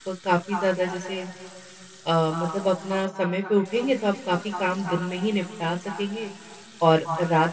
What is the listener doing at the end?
listening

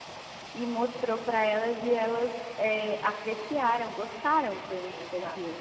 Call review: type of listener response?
taking over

